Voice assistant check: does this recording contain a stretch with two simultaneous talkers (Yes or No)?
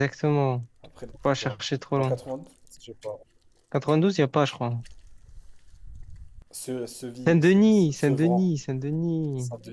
Yes